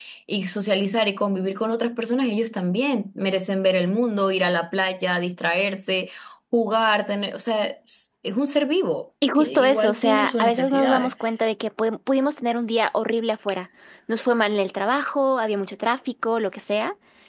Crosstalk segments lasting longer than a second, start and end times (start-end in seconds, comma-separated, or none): 9.3-11.1